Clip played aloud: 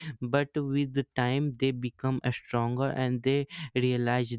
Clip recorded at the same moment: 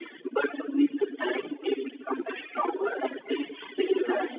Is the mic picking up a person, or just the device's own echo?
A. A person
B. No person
B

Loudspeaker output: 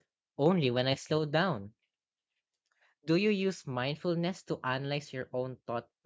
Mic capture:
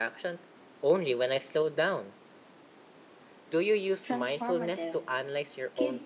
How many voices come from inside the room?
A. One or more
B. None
A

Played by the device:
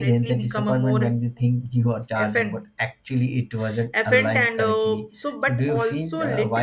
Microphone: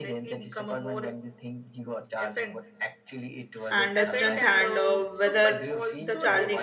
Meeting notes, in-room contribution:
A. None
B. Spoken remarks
B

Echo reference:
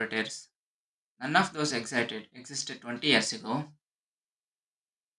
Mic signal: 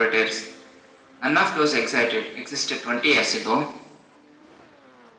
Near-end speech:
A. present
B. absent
B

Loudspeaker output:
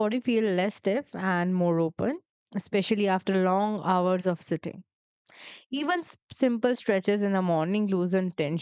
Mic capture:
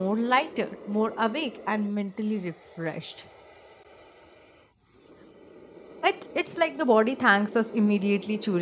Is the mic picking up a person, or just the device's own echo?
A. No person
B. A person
B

